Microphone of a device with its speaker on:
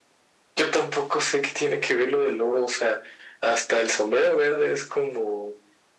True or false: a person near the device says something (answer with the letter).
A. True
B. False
B